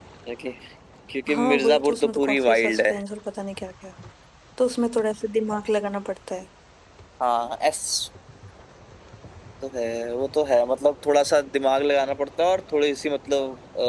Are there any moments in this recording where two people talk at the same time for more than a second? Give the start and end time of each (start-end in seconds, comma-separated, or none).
1.3-2.9